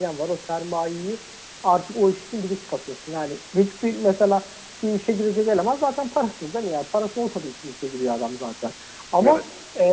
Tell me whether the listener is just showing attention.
Yes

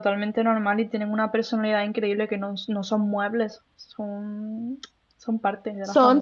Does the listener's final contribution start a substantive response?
Yes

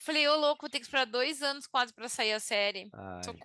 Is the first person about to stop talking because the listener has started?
Yes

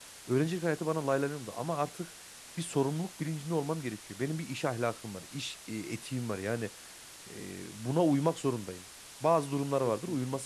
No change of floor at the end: Yes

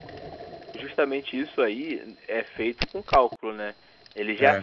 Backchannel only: Yes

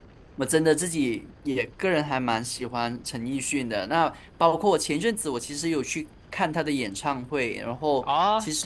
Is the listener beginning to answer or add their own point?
Yes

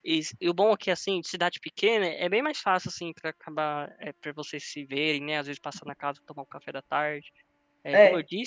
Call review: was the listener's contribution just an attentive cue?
Yes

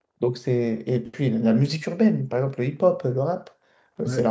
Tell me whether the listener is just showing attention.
Yes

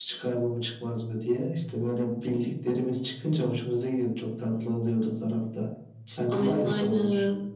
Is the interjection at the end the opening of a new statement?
Yes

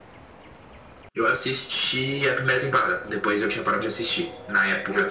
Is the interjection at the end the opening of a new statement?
No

